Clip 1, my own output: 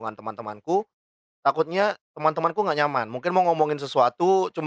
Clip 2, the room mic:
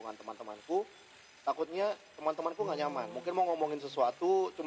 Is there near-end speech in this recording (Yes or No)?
Yes